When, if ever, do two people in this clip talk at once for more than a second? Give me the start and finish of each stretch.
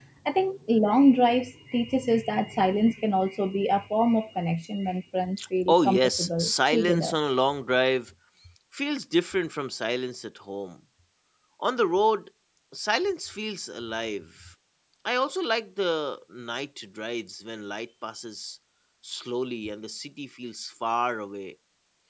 5.7-7.2

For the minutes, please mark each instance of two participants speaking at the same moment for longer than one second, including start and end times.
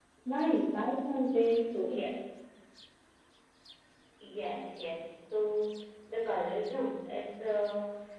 none

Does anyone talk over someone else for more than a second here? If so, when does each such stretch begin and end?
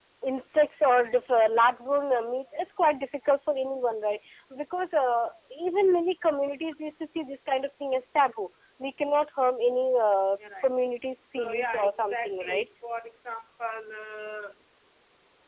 11.4-12.7

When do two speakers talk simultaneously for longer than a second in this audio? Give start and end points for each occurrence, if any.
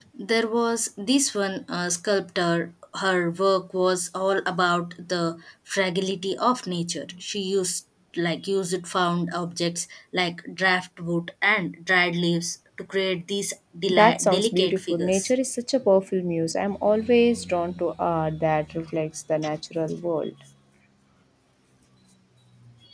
13.9-15.3

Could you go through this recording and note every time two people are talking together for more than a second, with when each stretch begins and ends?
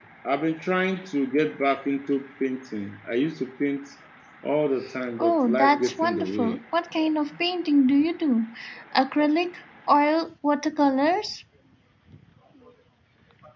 5.2-6.6

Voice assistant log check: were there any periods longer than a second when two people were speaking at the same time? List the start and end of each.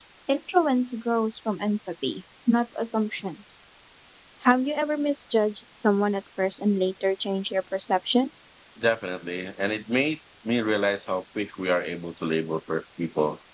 none

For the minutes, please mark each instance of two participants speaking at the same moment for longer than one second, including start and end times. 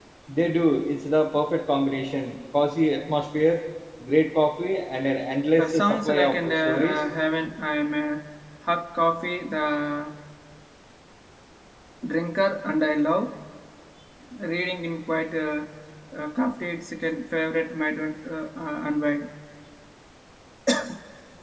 5.6-7.0

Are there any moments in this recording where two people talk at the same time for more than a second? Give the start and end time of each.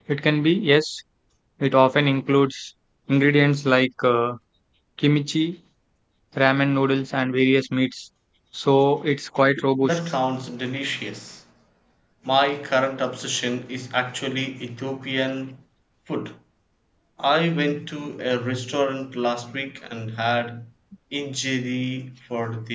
none

